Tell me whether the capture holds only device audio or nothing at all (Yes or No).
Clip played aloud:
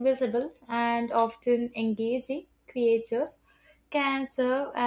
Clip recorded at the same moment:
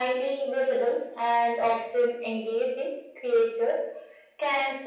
Yes